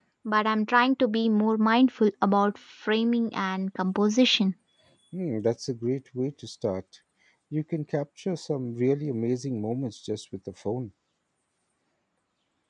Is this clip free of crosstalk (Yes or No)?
Yes